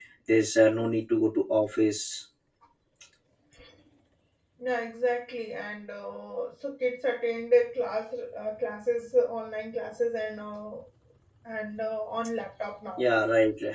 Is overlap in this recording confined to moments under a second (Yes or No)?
Yes